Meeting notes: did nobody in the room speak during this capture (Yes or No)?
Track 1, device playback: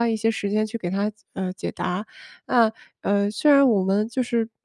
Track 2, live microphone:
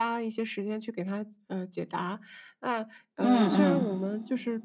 No